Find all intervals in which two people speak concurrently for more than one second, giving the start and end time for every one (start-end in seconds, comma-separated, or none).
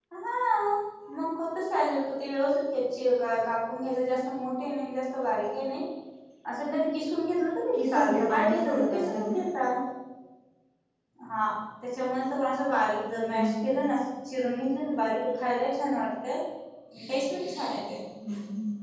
7.7-9.3